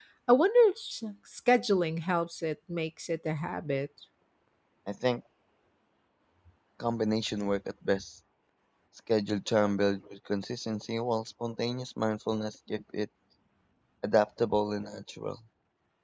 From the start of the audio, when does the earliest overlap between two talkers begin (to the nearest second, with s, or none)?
none